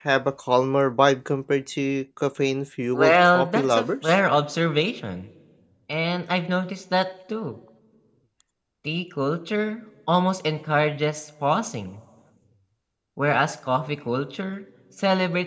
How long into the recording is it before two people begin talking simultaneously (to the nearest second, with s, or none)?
3 s